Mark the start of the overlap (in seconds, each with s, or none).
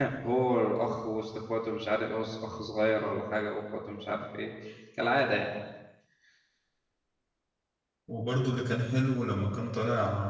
none